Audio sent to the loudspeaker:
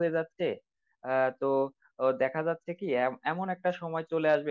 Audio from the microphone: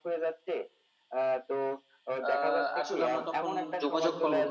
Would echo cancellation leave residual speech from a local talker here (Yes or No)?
Yes